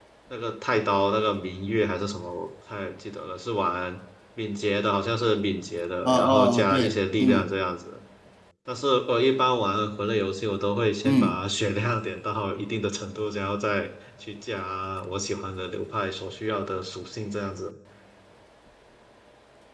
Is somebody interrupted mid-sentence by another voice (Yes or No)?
Yes